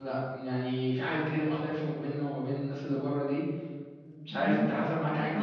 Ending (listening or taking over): taking over